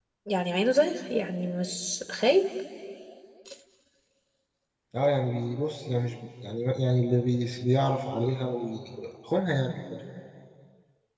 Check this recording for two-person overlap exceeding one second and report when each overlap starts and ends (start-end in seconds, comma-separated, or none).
none